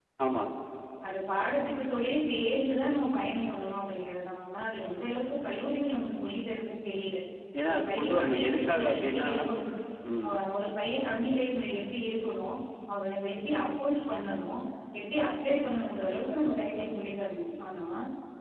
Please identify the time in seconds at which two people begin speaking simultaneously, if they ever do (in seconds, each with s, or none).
7.7 s